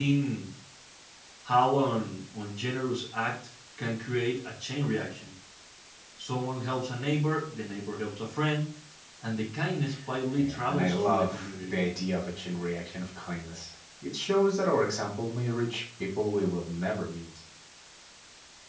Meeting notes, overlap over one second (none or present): present